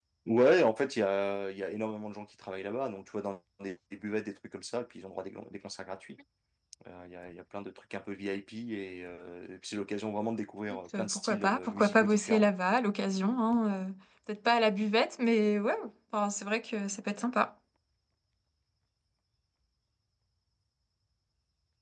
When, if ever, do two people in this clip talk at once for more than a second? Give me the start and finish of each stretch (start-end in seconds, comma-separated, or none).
10.9-12.5